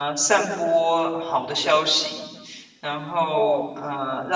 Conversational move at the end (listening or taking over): listening